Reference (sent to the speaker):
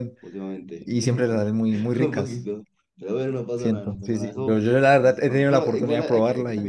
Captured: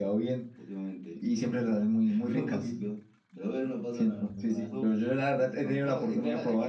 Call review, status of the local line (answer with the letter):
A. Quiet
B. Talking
A